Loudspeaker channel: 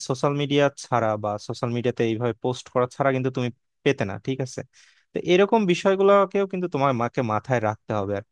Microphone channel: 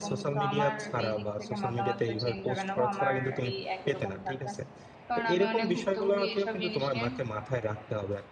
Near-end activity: present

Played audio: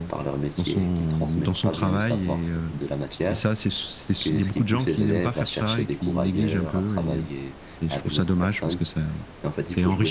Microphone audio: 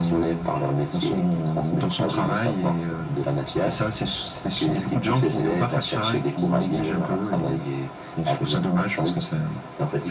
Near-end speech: none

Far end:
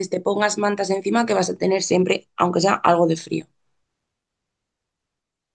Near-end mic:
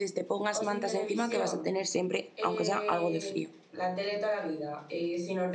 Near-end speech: present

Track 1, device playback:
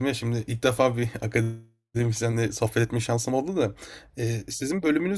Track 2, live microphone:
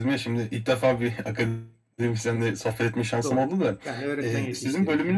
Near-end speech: present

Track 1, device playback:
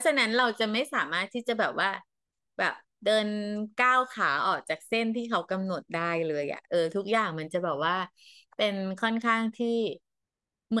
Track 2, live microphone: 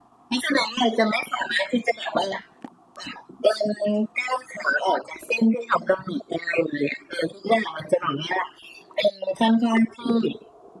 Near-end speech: none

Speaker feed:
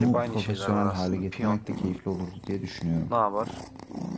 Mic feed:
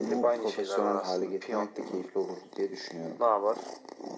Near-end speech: none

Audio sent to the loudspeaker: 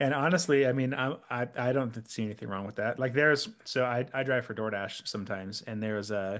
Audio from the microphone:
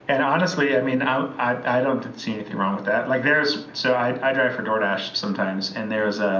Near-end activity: none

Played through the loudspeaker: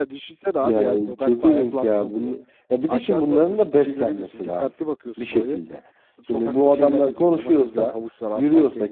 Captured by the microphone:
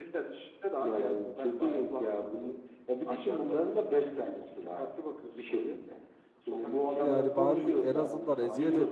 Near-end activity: present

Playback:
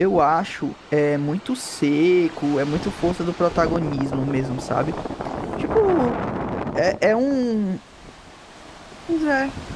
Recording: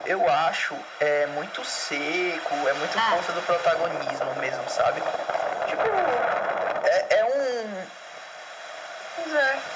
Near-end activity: present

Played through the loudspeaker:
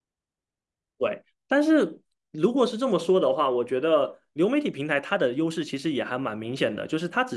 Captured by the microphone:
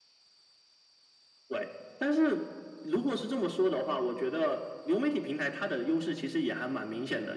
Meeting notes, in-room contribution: none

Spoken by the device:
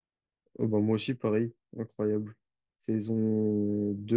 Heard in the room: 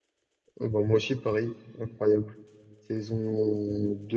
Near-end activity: none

